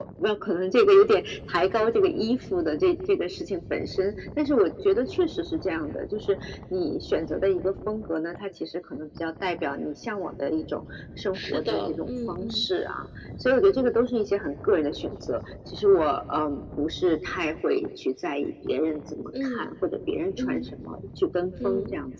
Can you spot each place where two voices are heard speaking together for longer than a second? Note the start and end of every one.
11.4-12.7

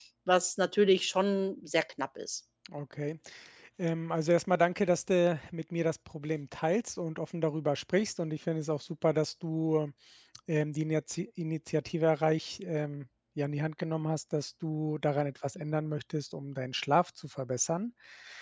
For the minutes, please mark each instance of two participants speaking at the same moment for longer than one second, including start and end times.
none

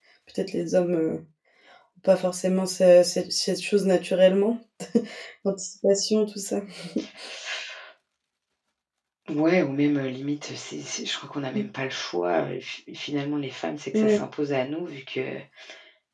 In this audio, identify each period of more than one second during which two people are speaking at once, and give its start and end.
none

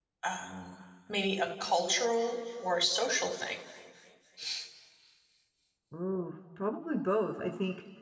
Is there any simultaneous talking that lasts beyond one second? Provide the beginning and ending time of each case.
none

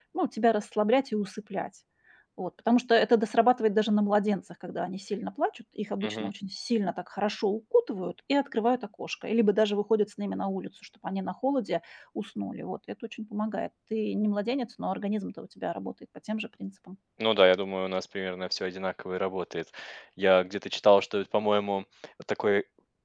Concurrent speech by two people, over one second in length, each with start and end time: none

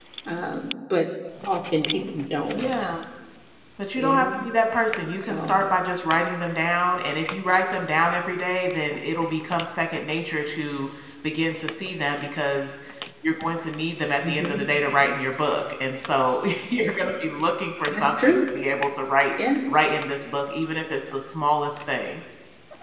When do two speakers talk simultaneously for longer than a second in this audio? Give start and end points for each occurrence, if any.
none

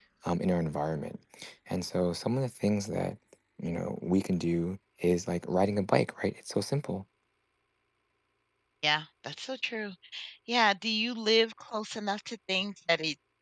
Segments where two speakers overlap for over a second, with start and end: none

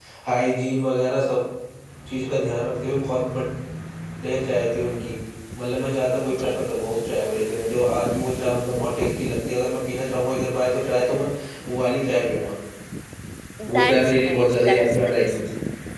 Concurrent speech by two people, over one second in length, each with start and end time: 13.8-15.4

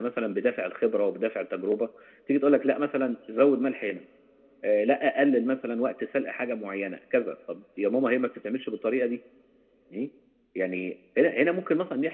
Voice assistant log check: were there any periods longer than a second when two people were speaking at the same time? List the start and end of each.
none

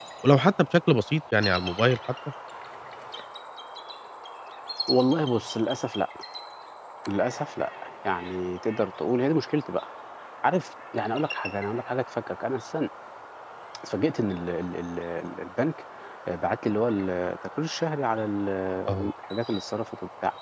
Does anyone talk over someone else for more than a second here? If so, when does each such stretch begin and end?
none

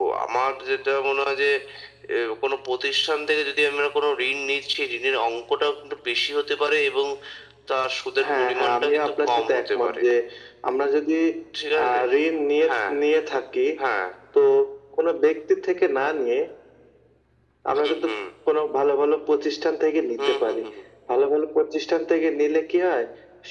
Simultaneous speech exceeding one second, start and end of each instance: 8.4-10.0

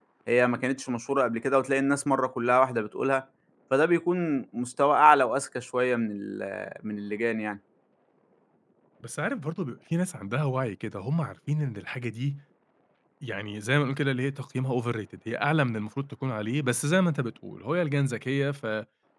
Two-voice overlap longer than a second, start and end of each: none

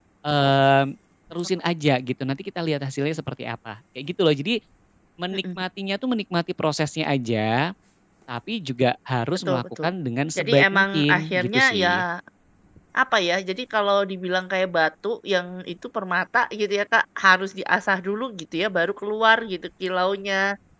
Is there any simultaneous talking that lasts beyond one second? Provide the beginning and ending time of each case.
10.4-12.0

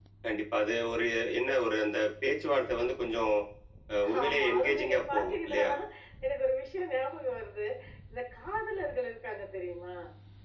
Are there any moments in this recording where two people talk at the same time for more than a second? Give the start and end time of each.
4.2-5.7

